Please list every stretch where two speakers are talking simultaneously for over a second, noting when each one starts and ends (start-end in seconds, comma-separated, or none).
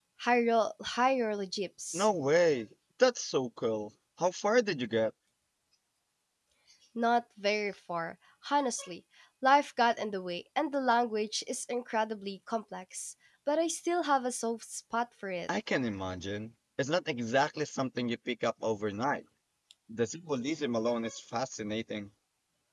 none